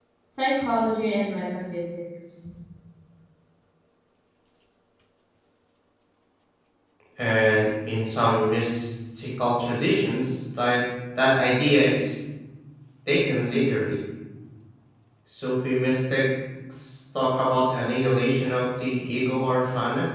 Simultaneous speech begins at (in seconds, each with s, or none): none